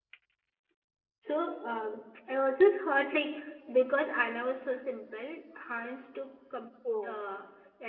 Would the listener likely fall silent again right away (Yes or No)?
Yes